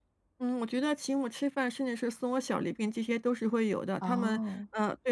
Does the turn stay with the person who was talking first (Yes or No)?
Yes